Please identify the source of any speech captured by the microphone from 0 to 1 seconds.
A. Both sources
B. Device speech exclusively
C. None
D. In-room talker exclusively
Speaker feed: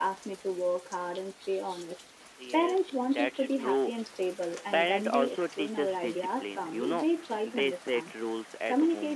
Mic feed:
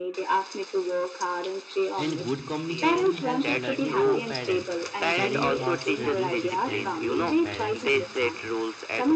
B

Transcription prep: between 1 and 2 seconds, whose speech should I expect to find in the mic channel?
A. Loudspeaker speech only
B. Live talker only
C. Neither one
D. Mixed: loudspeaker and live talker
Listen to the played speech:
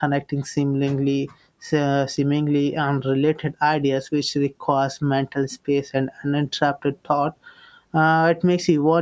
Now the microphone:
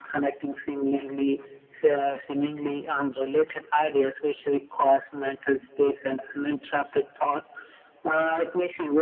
A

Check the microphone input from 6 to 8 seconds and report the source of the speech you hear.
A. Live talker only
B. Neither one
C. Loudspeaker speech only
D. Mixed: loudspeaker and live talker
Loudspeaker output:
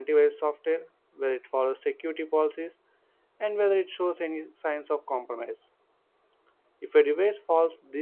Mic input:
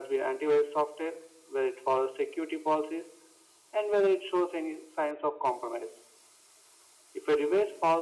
C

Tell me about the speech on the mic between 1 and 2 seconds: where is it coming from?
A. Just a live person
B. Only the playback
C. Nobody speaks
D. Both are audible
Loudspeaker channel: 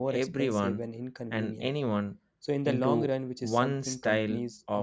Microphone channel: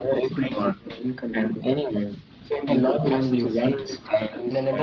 B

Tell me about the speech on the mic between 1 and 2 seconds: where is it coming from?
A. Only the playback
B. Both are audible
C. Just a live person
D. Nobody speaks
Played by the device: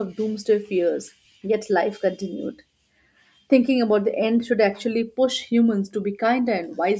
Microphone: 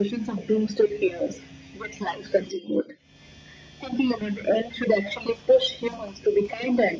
A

